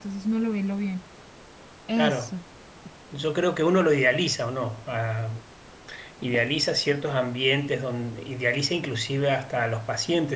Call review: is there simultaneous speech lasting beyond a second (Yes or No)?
No